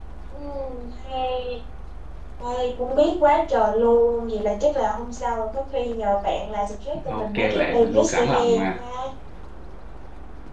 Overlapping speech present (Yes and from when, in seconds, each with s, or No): Yes, from 7.1 s